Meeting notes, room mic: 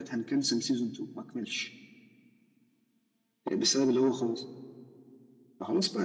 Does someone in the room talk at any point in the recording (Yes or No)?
No